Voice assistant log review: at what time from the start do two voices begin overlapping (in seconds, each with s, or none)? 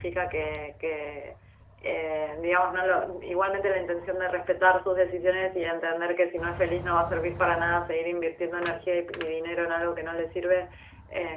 none